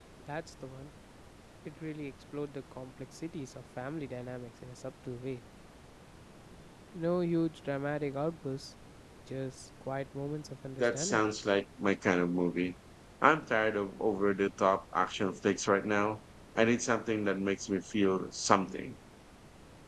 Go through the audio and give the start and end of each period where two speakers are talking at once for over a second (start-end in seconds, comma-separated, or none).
none